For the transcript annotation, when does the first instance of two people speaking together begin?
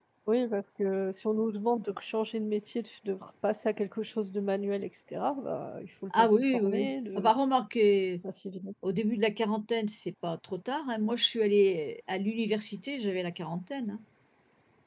6.1 s

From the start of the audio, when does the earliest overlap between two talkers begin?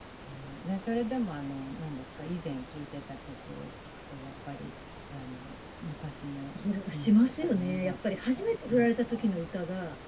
6.5 s

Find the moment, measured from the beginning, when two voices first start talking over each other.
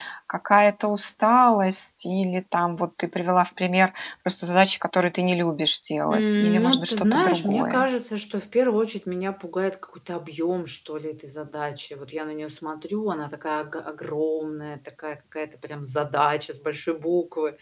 6.1 s

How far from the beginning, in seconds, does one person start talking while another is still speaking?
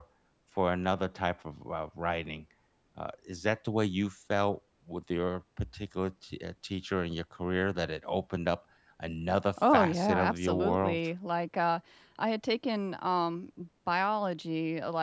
9.6 s

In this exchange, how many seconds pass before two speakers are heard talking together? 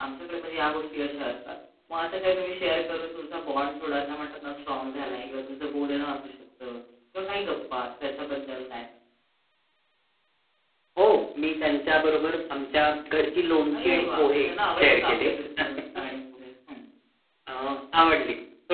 13.7 s

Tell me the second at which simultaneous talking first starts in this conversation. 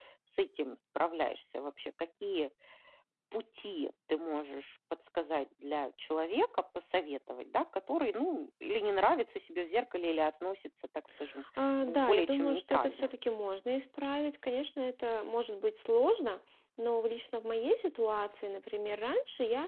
11.8 s

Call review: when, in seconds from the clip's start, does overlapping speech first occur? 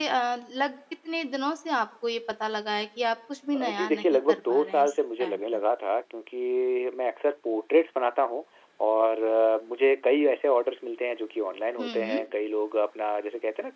3.5 s

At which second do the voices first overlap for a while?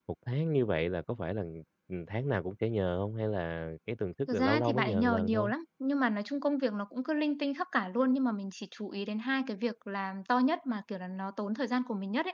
4.3 s

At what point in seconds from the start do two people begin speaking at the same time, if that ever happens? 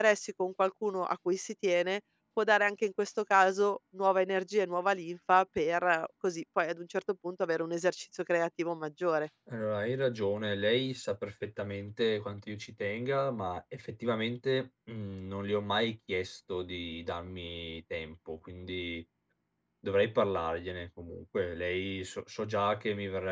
none

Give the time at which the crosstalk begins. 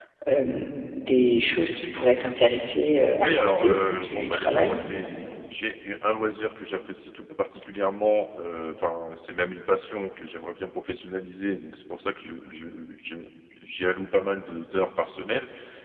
3.2 s

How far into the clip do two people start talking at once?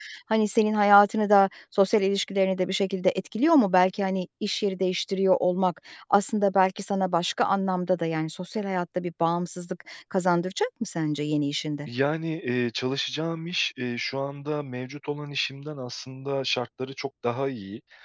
none

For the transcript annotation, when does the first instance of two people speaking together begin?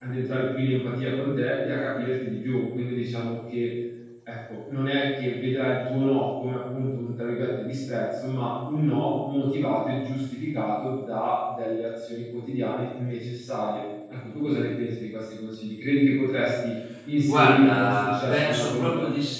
17.2 s

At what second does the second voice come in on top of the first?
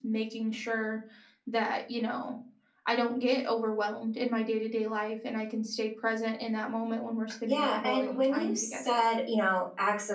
7.5 s

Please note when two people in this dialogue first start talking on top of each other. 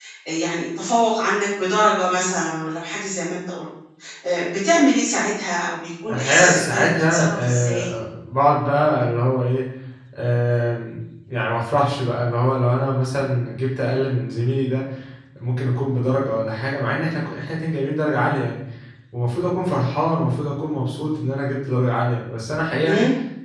6.1 s

